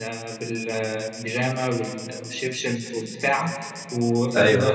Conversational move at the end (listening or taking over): listening